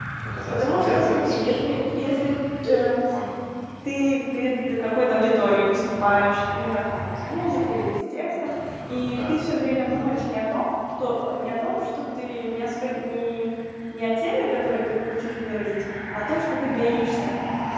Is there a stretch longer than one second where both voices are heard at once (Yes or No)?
Yes